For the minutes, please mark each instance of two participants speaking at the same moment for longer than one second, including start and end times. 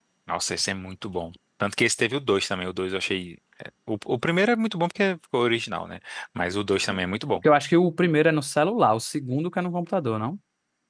none

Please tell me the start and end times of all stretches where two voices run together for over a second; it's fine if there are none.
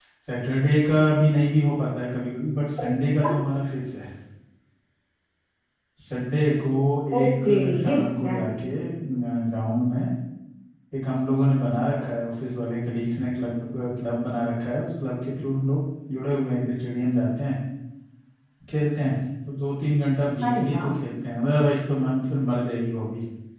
7.2-8.5

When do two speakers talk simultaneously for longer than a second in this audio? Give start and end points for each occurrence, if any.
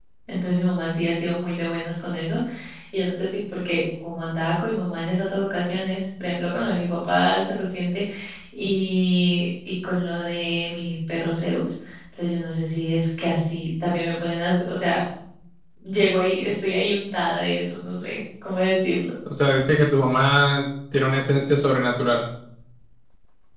none

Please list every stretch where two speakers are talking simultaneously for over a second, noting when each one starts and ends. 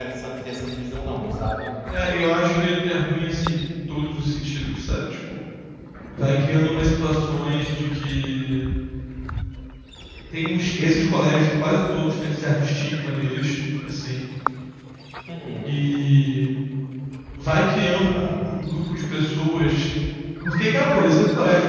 none

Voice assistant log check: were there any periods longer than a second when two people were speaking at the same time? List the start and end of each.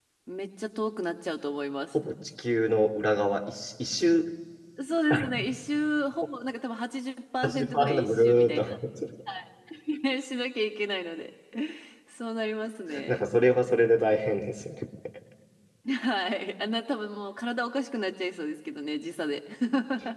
7.4-8.8

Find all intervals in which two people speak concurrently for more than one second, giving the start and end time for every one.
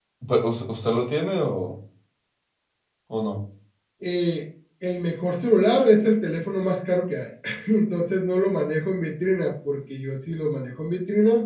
none

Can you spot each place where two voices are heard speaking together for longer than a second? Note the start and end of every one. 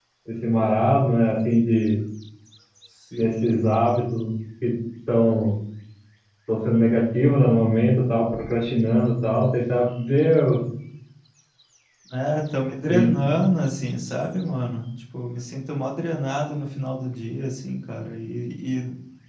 none

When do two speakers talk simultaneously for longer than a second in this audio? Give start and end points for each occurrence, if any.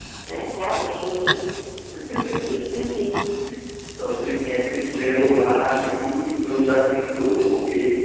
none

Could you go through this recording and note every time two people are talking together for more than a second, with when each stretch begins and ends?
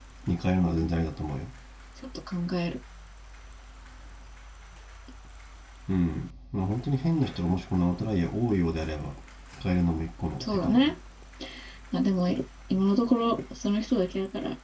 none

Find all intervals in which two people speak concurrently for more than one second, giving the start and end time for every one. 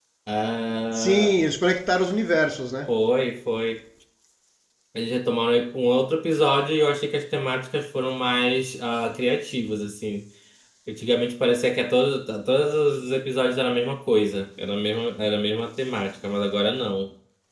none

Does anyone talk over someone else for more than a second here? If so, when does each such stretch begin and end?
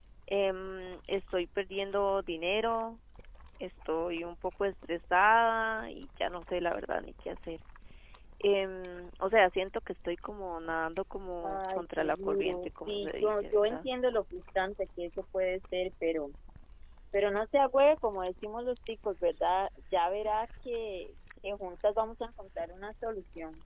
11.4-13.8

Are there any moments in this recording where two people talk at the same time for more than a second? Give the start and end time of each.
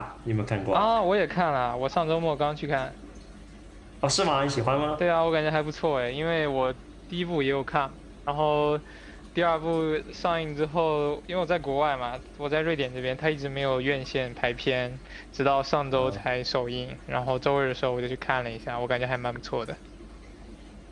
none

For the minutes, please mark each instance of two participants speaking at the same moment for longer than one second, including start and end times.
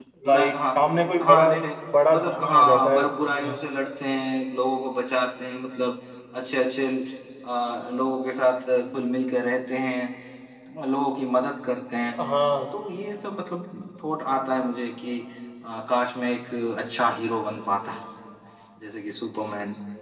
2.1-3.5

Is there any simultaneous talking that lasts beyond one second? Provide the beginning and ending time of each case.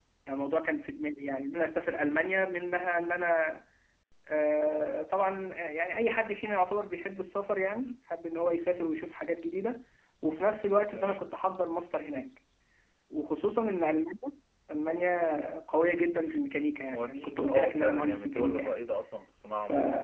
16.9-18.8

